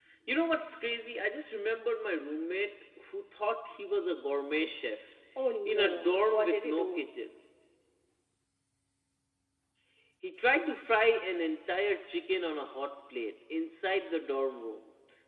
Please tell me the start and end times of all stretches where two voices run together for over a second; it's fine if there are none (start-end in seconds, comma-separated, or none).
5.7-7.0